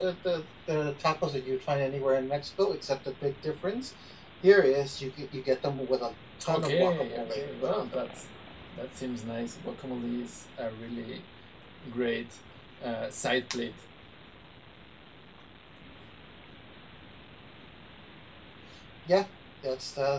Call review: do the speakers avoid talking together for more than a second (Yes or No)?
No